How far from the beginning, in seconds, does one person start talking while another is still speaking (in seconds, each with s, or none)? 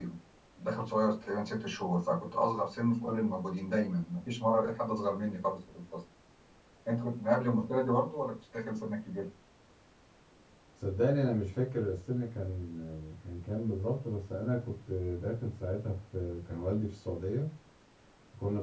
none